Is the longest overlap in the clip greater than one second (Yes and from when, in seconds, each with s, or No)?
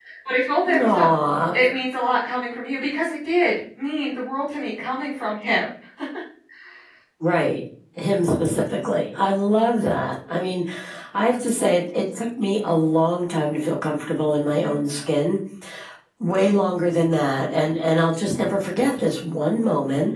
No